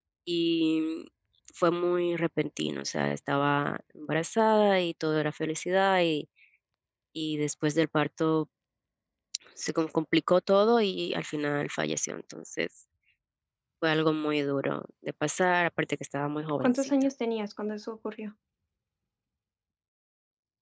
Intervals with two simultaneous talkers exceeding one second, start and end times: none

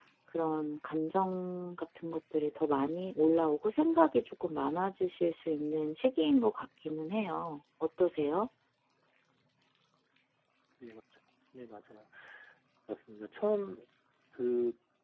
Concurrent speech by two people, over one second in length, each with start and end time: none

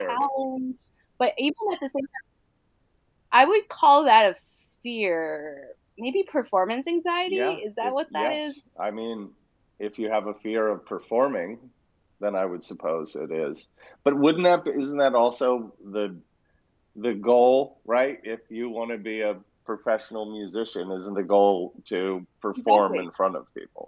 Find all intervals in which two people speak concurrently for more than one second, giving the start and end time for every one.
7.3-8.5

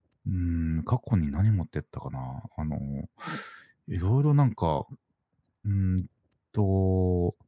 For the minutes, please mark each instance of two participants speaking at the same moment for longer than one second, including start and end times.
none

